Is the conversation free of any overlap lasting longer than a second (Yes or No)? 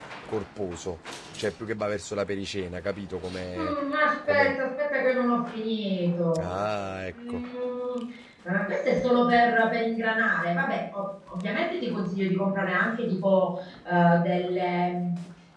Yes